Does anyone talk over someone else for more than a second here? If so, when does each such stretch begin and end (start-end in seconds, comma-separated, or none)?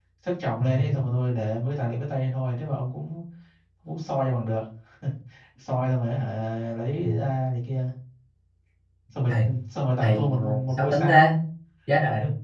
10.0-11.3